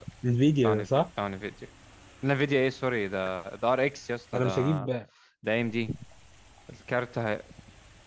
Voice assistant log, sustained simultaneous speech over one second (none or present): none